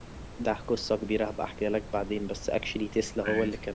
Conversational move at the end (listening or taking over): listening